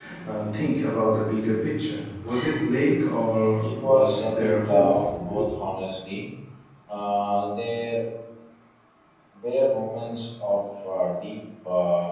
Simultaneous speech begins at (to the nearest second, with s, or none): 4 s